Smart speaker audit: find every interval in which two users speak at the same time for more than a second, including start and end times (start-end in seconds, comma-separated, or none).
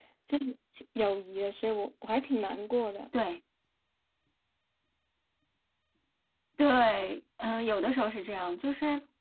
none